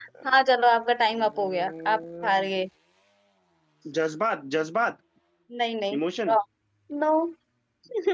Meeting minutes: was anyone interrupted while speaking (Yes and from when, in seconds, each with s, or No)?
Yes, from 1.1 s